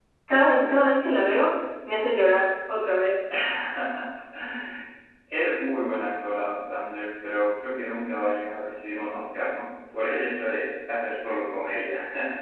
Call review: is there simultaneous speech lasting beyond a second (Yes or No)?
No